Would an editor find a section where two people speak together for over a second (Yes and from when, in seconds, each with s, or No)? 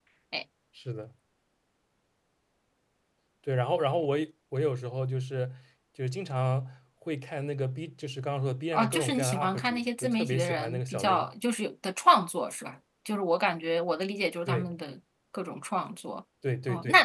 Yes, from 8.7 s